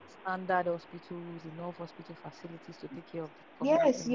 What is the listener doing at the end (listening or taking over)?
taking over